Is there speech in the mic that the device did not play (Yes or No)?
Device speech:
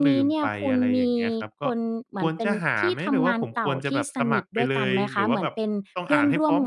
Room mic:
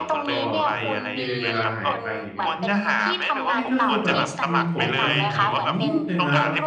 Yes